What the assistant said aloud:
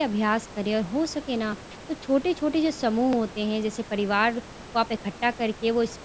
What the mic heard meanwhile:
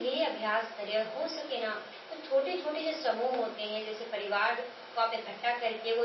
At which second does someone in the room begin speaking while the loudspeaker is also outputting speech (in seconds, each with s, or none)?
none